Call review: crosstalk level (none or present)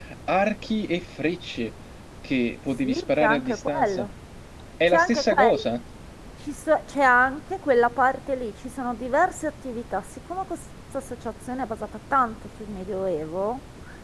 present